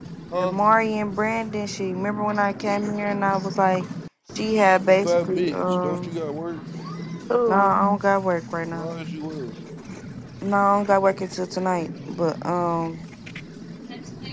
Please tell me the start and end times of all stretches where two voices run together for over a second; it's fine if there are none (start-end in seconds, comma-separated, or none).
4.8-6.1